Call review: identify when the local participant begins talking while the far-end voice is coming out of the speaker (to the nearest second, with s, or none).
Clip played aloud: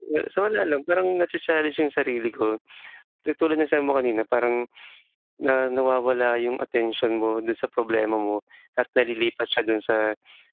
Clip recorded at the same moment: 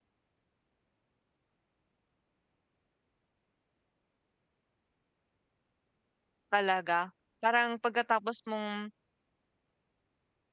7 s